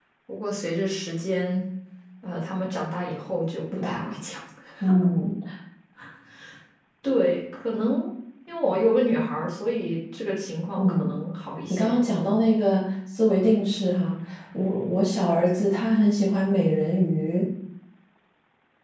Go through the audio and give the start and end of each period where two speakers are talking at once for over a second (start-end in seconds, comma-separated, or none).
none